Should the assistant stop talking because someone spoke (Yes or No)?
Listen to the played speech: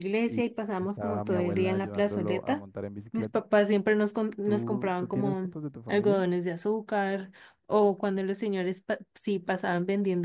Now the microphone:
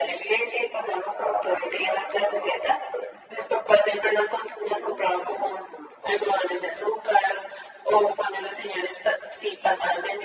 No